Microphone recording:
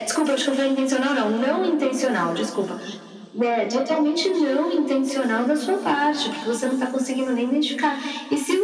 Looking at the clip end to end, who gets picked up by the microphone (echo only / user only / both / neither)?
echo only